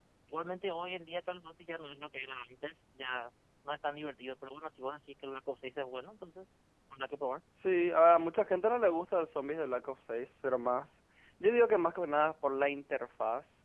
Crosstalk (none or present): none